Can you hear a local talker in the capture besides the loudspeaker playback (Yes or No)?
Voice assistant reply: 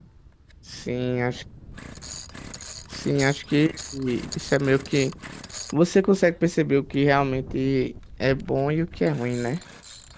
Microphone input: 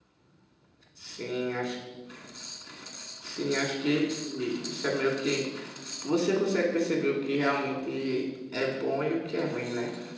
No